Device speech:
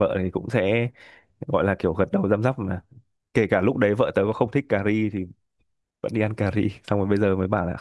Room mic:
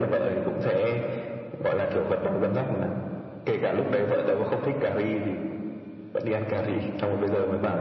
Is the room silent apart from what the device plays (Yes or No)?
Yes